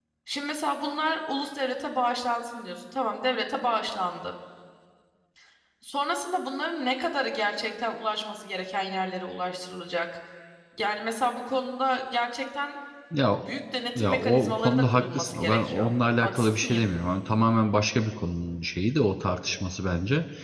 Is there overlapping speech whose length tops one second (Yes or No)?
Yes